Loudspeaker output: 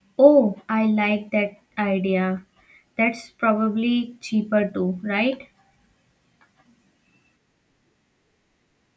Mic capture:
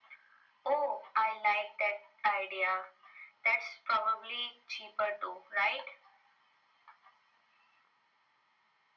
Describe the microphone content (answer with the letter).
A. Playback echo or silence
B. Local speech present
A